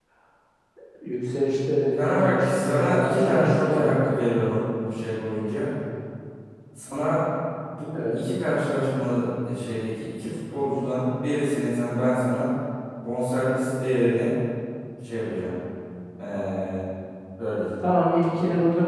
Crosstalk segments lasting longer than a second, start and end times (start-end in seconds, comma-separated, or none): 2.0-4.0